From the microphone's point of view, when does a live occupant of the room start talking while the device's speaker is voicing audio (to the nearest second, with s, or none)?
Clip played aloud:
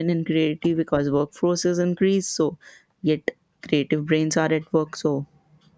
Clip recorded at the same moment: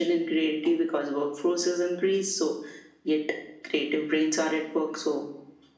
none